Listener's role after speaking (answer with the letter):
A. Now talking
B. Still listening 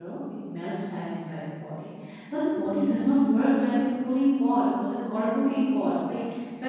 B